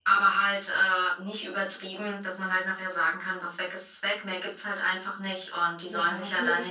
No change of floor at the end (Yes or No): No